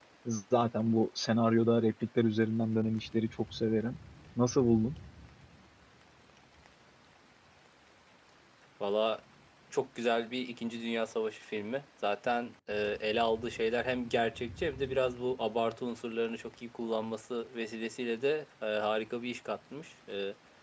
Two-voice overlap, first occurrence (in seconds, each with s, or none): none